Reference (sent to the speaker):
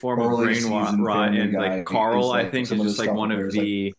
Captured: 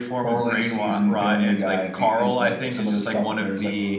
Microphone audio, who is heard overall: echo only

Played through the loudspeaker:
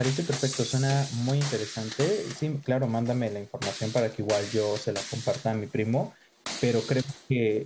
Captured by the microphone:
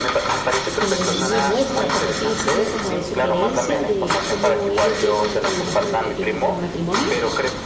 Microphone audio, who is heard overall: both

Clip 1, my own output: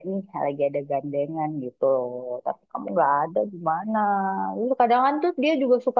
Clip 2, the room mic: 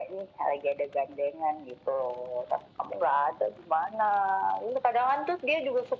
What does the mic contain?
echo only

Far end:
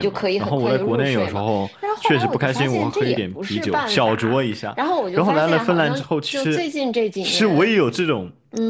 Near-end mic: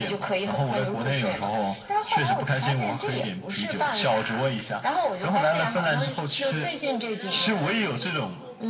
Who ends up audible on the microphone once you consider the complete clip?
both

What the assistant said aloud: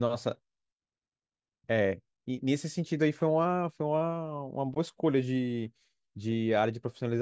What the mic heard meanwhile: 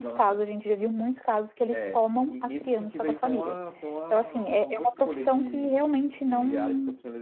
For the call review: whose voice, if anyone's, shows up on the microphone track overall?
both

